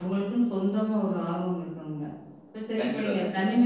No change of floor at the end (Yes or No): Yes